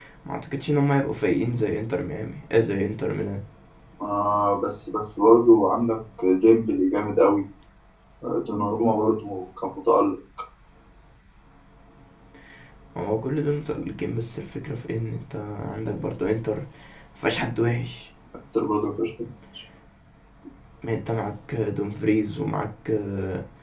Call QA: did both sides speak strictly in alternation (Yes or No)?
Yes